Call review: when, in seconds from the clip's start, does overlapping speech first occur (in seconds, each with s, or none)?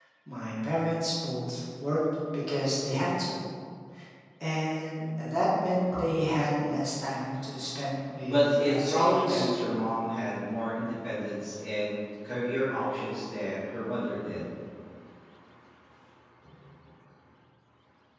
8.2 s